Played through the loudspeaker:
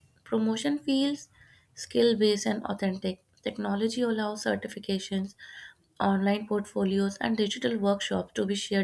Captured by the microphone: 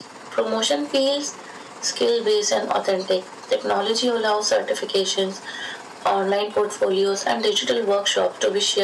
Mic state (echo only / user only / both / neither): echo only